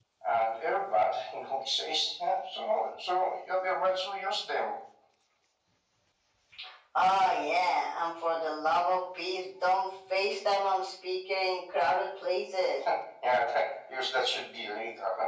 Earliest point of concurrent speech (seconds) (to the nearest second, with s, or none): none